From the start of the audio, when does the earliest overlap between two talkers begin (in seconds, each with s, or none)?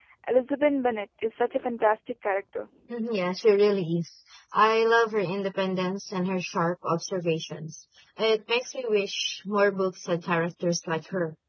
none